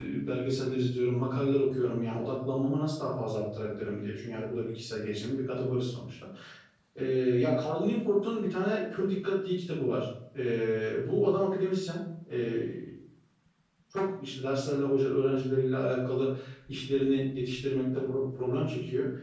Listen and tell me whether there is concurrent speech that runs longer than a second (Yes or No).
No